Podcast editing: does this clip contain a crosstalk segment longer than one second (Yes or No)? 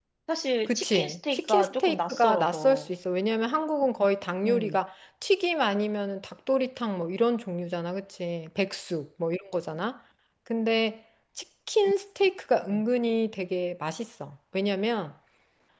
Yes